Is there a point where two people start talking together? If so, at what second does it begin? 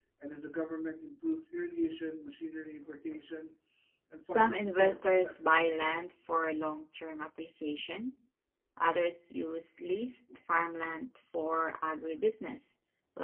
4.2 s

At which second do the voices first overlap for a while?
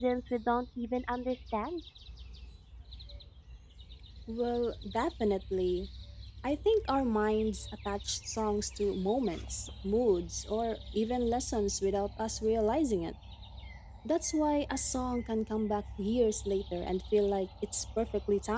none

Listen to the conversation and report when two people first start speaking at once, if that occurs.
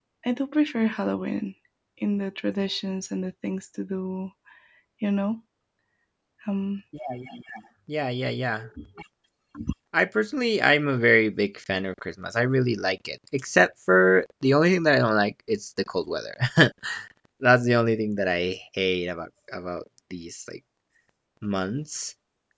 none

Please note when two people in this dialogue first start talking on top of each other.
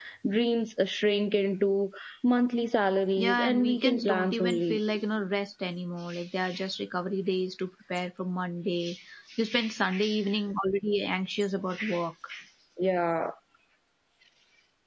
3.2 s

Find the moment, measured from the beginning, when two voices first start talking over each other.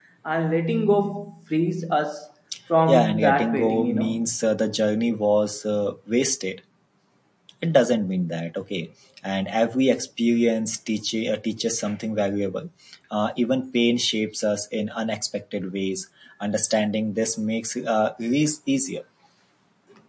2.9 s

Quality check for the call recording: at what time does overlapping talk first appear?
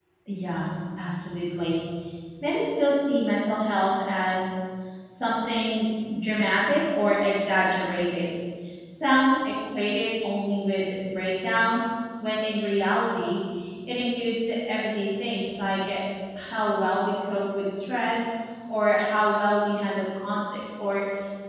none

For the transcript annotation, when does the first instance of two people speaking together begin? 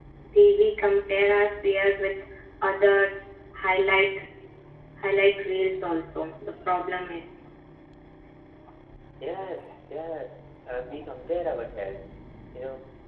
none

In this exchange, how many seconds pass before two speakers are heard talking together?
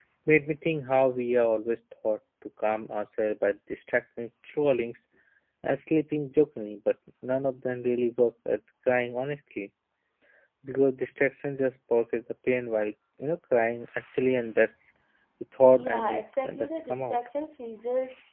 15.7 s

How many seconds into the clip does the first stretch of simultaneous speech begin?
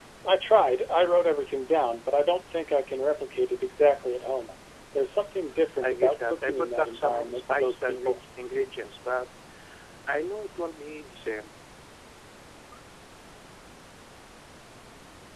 5.8 s

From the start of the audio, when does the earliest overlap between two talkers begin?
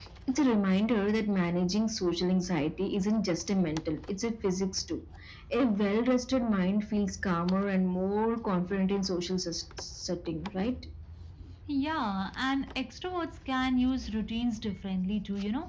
none

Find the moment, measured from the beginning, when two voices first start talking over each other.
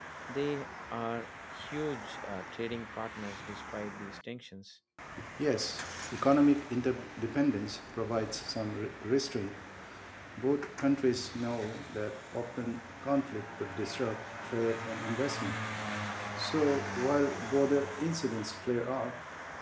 none

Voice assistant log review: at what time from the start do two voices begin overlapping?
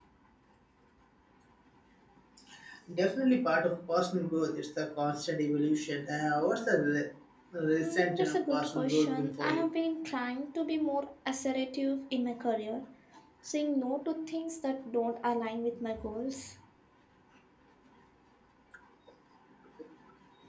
7.8 s

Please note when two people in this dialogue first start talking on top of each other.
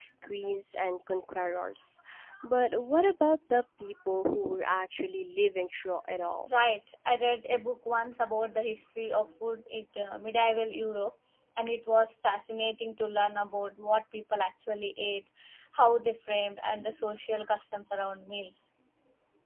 none

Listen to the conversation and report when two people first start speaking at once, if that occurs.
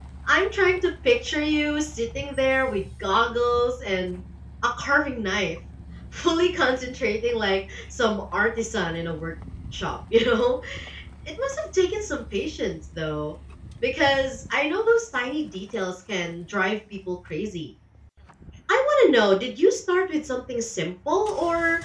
none

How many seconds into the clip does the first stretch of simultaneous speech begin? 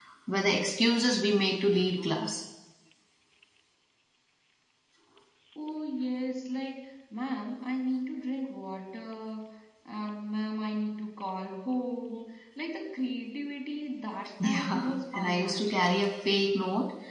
14.4 s

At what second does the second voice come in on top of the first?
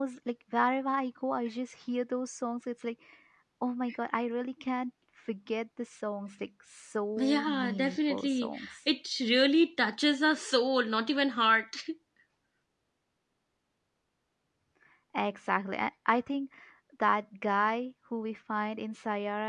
7.2 s

